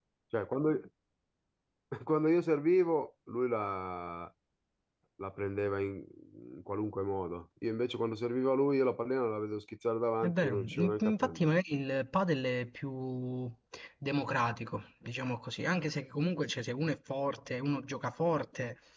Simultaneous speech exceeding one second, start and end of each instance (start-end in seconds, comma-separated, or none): 10.2-11.5